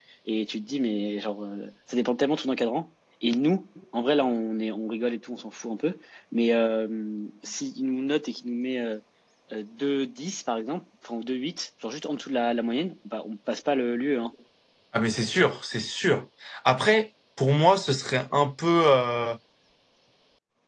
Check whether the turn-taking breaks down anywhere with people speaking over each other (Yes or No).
No